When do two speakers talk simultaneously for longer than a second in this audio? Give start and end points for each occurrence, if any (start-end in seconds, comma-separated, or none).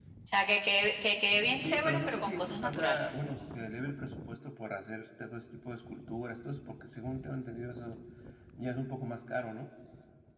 1.5-3.2